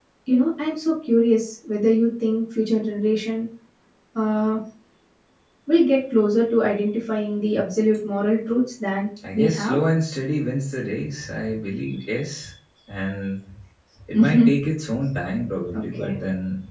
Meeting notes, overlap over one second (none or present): none